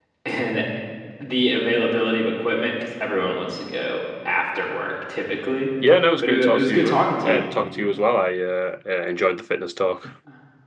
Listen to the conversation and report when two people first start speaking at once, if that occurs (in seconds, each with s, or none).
6.2 s